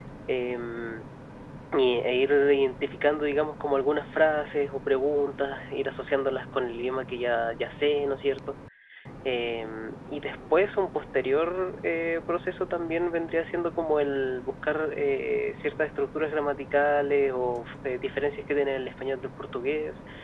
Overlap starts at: none

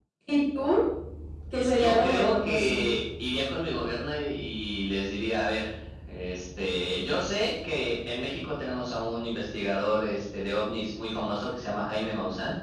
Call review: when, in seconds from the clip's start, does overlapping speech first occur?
1.6 s

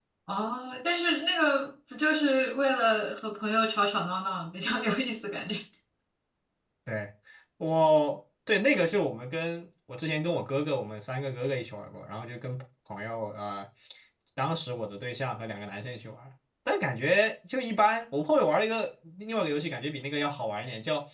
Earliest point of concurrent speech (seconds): none

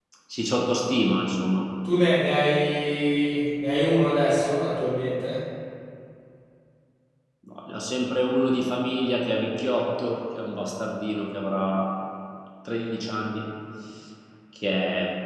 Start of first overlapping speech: none

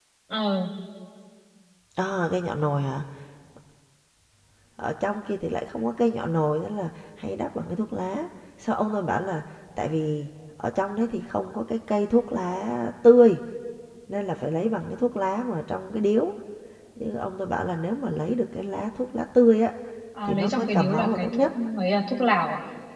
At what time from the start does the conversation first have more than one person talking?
20.2 s

